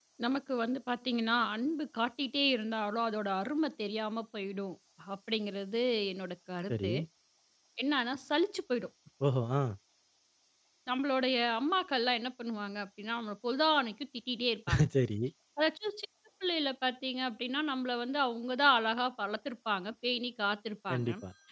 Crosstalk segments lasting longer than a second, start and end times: none

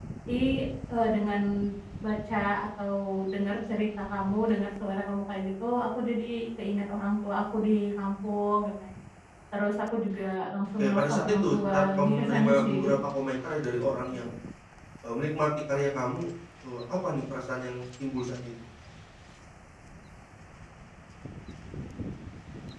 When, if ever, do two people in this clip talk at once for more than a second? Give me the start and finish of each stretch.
10.8-12.9

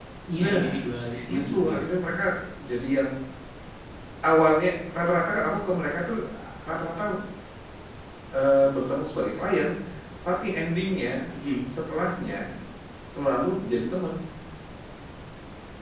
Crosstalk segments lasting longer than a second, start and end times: none

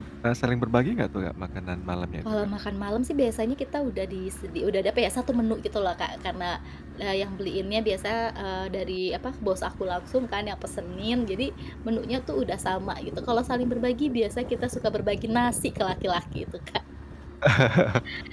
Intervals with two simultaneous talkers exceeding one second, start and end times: none

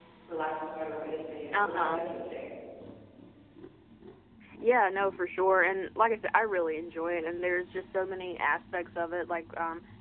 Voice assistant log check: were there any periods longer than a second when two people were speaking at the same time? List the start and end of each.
none

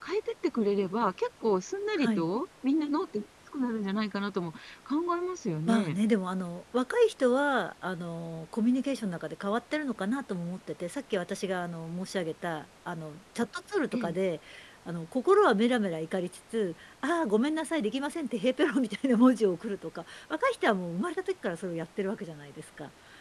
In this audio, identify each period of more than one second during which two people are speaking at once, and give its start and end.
none

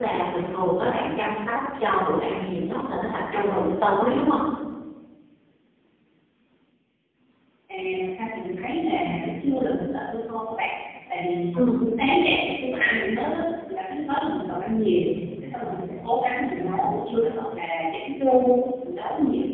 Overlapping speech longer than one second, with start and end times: none

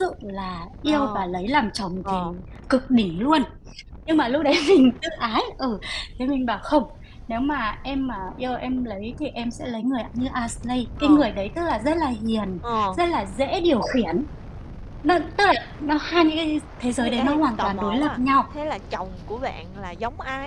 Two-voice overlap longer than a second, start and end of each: 17.0-18.2

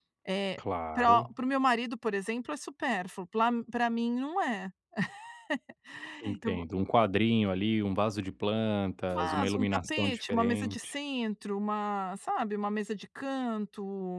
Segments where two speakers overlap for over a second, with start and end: 9.1-10.9

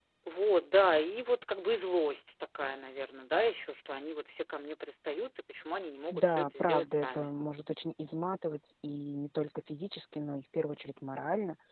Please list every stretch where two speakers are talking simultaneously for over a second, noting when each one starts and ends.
6.1-7.4

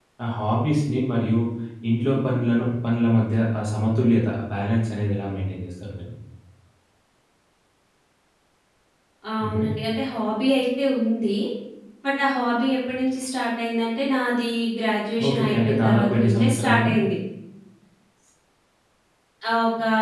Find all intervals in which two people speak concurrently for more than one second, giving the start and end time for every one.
15.3-16.9

